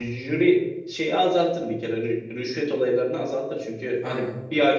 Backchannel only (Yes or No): Yes